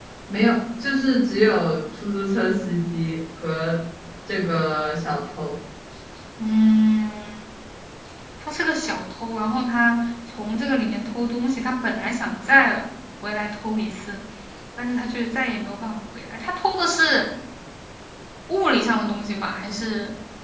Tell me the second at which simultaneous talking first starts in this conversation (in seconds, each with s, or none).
none